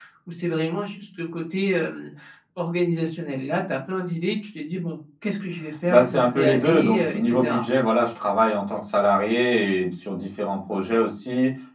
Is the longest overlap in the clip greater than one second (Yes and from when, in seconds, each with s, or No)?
Yes, from 5.9 s